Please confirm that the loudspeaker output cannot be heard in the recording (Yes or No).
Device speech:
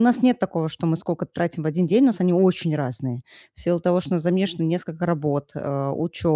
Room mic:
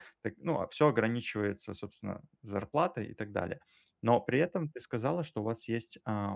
Yes